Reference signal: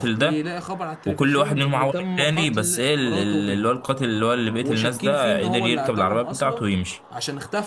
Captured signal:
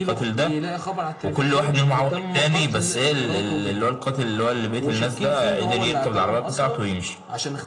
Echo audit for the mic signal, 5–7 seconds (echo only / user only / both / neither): echo only